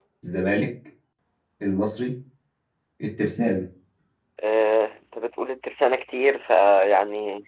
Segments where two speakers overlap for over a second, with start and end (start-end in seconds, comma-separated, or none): none